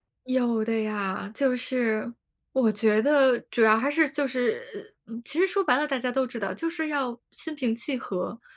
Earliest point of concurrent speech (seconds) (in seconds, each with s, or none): none